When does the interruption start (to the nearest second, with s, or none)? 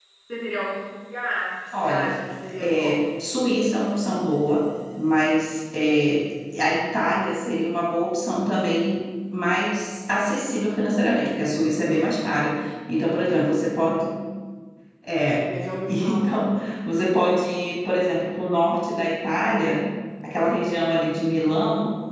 2 s